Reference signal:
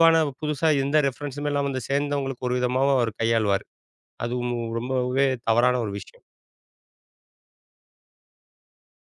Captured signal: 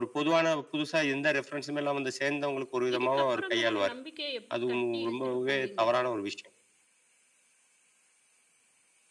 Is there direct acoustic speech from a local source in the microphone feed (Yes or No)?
Yes